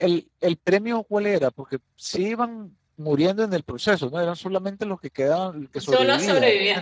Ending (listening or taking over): taking over